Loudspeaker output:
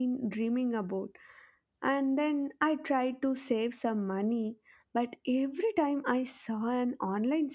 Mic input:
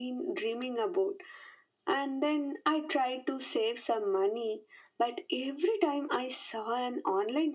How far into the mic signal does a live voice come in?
none

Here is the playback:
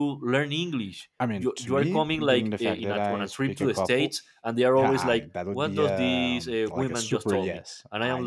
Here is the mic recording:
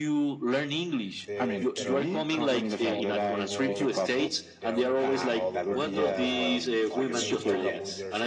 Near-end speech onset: 1.1 s

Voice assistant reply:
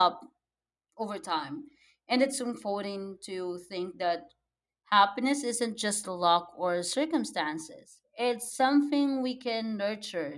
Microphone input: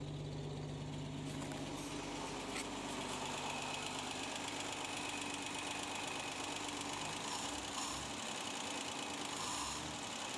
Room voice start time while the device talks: none

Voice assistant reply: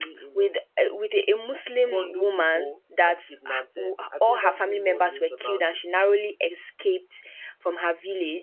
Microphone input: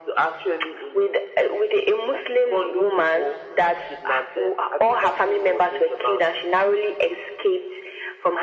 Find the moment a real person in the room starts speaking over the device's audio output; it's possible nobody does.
none

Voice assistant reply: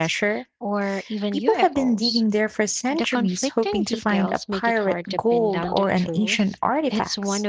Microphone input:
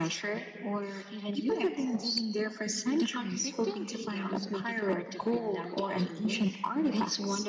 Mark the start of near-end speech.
none

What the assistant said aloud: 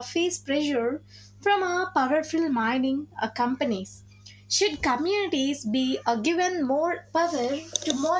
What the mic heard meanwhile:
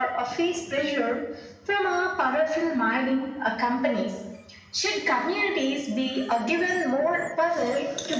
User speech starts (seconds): none

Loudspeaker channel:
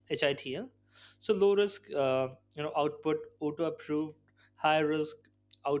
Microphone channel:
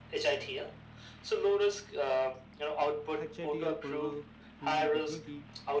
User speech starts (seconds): 3.2 s

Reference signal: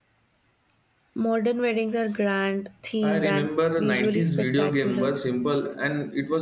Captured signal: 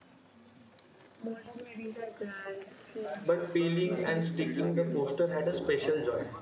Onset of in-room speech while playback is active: 3.2 s

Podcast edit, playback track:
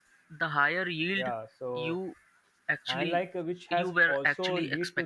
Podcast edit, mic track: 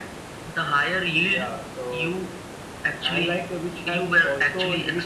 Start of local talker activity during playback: none

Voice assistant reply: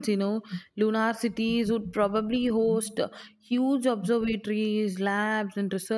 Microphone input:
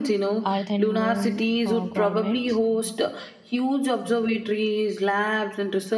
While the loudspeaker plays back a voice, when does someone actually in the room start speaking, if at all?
0.5 s

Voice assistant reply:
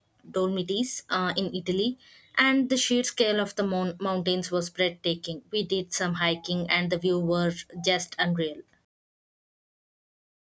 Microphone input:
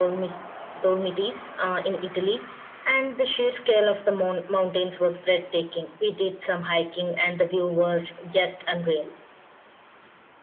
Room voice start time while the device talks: none

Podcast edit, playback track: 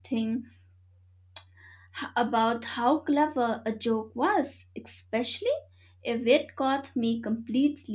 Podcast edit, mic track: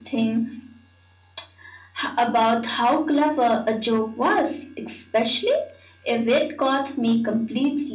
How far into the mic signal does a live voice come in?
none

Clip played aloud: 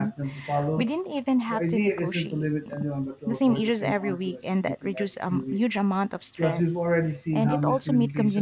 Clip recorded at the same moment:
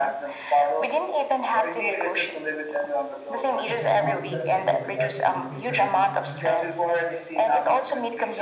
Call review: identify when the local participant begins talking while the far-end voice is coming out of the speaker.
3.6 s

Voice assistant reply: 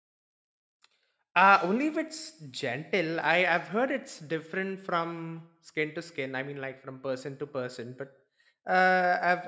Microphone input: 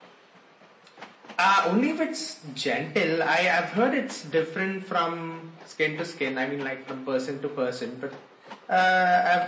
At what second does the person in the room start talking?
none

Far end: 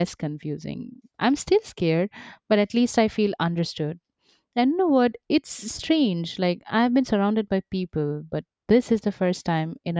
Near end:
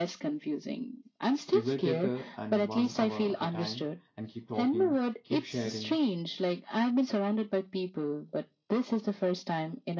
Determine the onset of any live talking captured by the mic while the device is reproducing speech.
1.4 s

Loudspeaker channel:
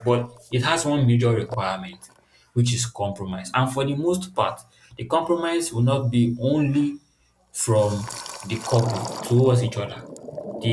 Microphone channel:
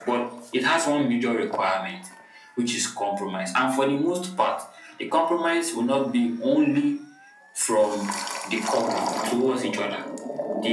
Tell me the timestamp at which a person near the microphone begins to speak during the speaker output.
none

